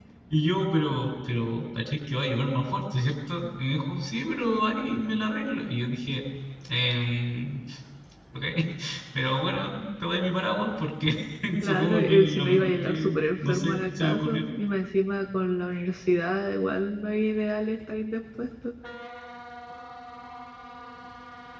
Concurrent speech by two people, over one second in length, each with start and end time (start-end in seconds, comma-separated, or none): 11.6-14.5